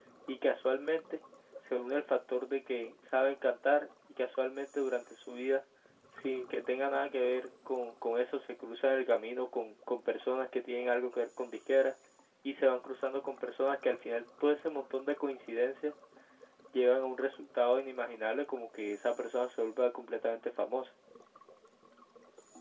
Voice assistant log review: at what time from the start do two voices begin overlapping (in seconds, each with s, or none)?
none